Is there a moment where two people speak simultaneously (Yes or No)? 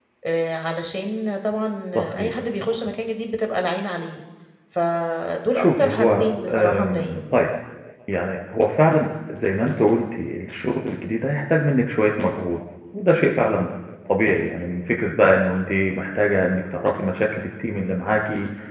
Yes